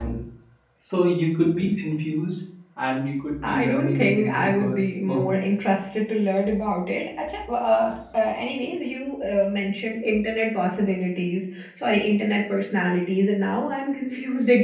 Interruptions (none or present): present